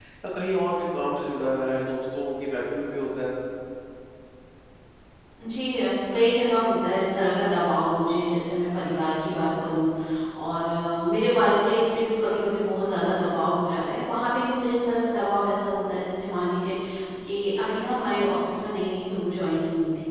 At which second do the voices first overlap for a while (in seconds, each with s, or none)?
none